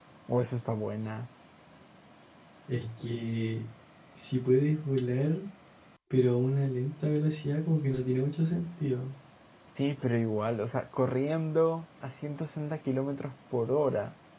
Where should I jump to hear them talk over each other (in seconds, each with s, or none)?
none